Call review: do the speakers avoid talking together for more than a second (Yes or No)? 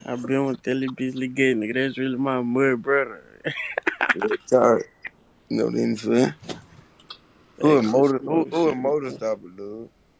No